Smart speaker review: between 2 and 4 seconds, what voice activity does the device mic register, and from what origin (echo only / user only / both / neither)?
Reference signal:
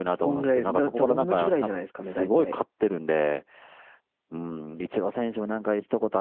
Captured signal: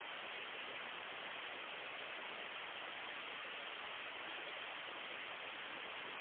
neither